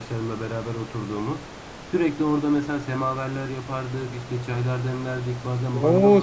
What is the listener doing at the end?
taking over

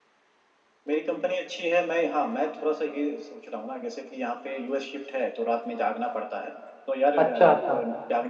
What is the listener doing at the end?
listening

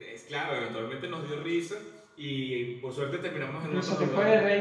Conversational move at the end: taking over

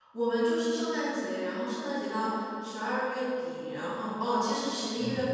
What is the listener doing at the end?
listening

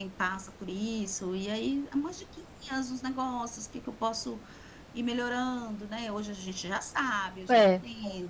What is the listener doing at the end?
listening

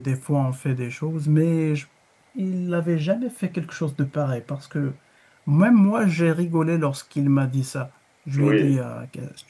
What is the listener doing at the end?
listening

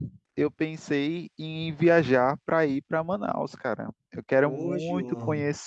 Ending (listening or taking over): listening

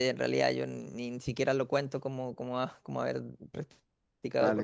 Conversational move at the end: taking over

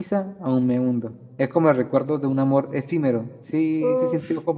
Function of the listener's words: taking over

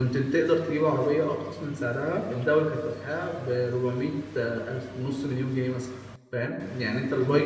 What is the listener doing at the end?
taking over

